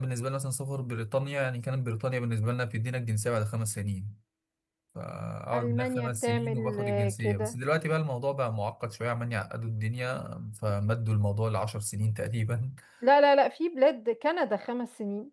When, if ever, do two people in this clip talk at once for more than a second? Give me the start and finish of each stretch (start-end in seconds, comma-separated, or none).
5.5-7.5